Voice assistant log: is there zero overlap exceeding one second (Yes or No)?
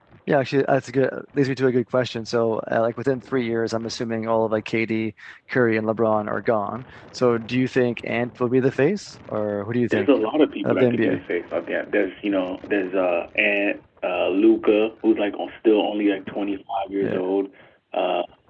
Yes